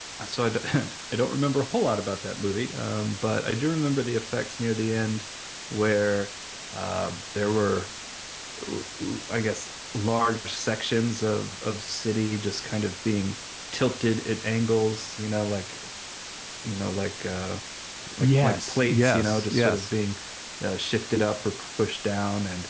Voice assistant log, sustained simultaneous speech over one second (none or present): present